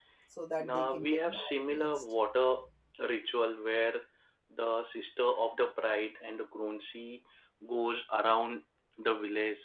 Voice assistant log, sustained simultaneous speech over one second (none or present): present